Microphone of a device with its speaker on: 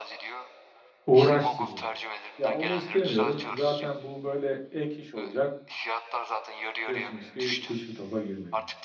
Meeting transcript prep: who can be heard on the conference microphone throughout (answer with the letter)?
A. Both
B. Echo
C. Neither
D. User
A